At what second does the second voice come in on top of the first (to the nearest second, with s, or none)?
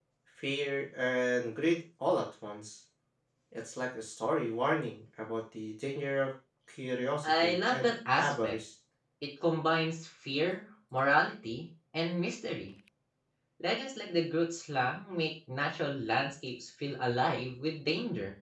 7 s